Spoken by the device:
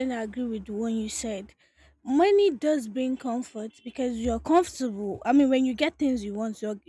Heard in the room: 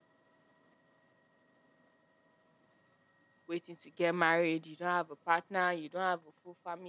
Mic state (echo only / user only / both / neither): user only